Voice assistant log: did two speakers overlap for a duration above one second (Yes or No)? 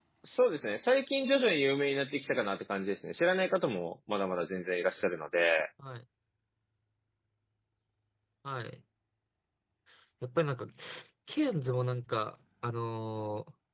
No